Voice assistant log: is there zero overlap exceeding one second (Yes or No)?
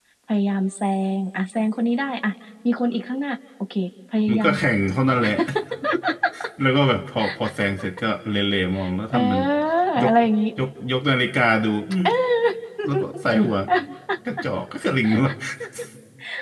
Yes